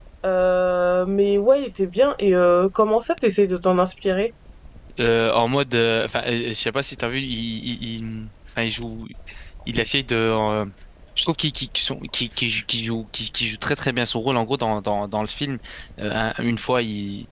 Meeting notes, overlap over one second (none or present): none